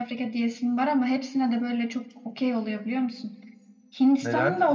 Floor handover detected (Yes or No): Yes